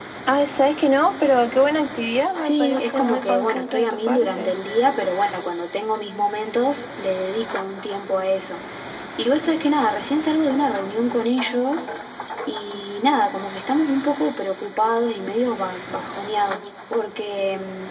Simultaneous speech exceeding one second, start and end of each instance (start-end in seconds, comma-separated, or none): 2.4-4.5